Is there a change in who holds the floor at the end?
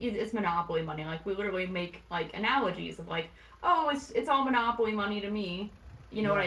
No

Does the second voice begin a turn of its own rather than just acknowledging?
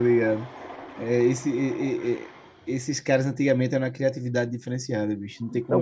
Yes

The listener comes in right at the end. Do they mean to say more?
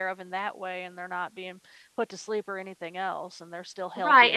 Yes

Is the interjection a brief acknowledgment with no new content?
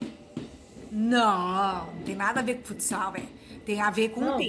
No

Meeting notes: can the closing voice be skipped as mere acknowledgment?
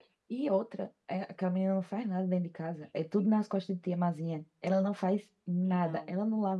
Yes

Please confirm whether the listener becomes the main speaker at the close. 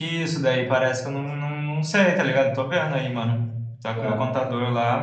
No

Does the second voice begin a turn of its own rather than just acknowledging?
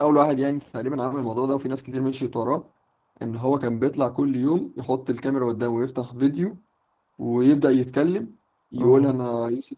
No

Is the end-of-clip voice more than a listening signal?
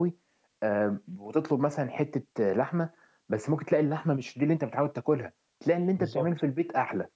No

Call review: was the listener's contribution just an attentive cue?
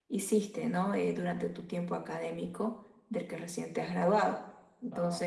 Yes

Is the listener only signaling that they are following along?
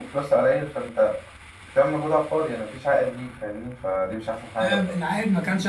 No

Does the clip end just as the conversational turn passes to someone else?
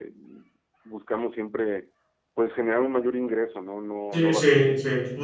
Yes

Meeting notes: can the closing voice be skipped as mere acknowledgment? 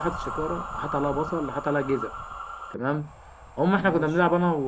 Yes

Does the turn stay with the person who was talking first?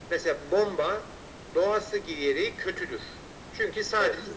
Yes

